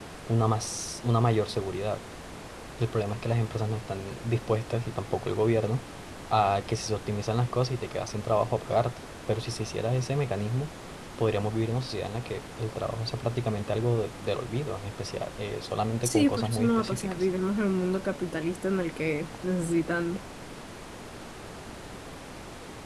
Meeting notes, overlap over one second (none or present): present